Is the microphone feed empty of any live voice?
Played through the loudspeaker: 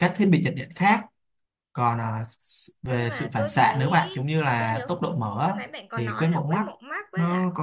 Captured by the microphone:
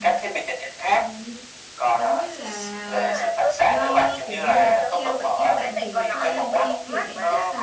No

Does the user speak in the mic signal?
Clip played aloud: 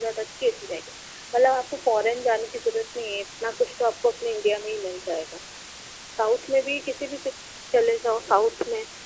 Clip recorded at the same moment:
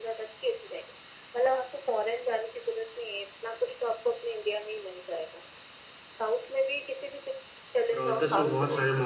Yes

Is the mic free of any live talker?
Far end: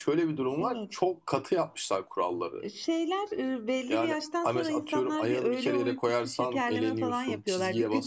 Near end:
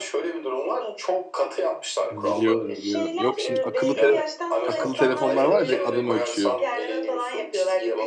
No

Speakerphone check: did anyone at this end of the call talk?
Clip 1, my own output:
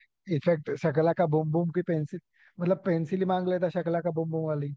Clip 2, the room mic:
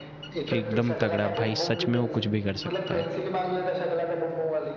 Yes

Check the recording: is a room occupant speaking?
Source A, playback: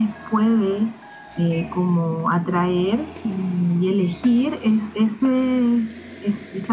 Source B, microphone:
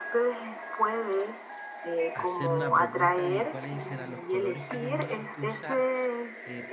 Yes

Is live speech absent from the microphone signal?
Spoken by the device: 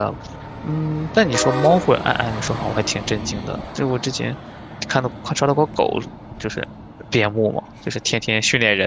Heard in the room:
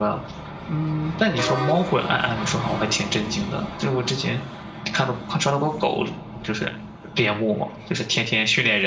Yes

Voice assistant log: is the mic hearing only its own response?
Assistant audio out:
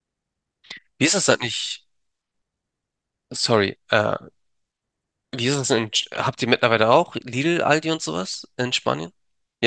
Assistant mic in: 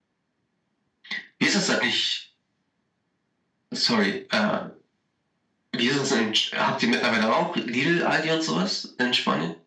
Yes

